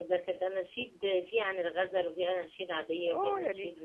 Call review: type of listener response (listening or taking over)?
taking over